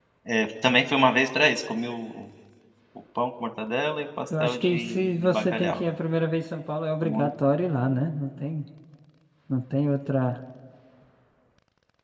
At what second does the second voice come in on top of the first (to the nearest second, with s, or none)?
4 s